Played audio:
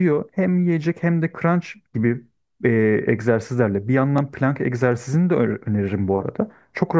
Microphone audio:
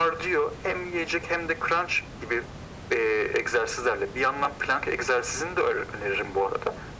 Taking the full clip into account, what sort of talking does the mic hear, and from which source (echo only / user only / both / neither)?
echo only